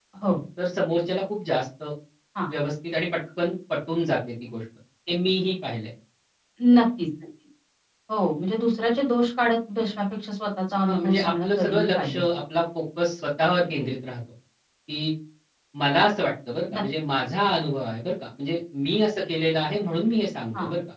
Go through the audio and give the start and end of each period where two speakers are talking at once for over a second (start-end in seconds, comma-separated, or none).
10.8-12.2